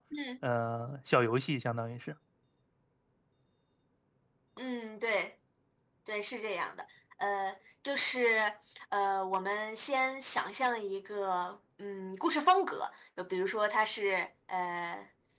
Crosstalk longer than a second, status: none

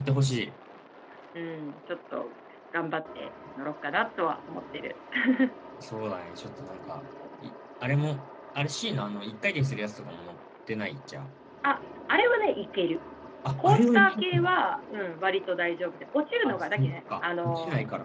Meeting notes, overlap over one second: present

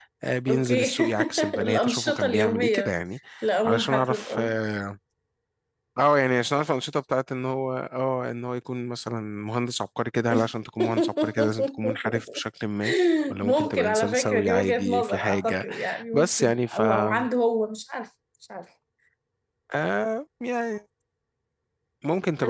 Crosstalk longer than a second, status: present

